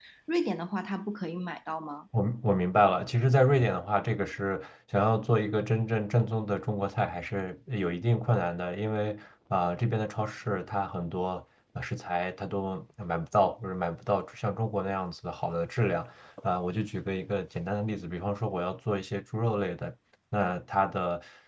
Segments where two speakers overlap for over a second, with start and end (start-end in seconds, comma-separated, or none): none